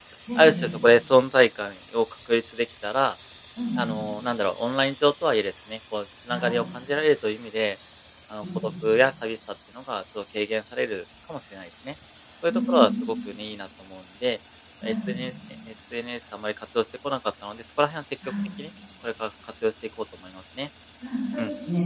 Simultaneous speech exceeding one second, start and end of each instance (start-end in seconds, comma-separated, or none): none